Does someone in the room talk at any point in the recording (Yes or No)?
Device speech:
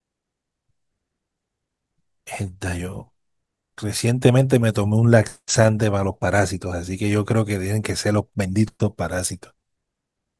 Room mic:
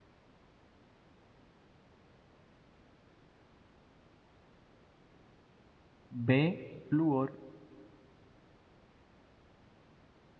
Yes